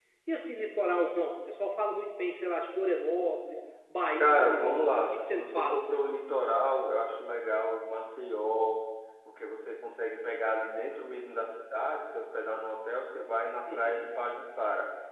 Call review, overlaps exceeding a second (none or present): present